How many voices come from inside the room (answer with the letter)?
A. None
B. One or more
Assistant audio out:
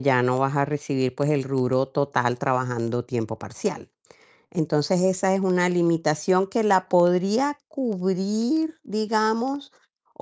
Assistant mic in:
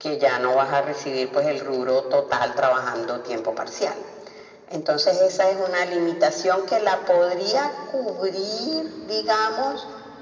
A